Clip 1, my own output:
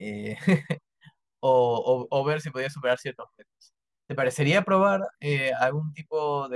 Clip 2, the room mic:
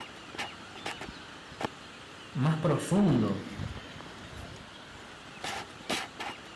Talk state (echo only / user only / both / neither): user only